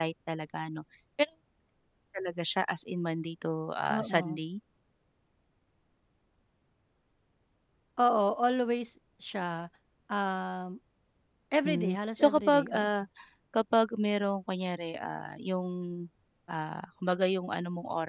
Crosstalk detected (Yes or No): Yes